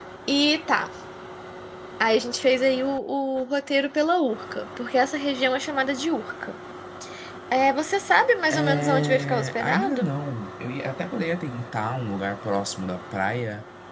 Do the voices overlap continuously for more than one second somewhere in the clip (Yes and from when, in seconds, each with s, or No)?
Yes, from 8.5 s